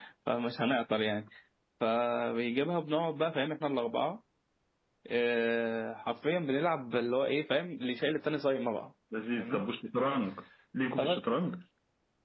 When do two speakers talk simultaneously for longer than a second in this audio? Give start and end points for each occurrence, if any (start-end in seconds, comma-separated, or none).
none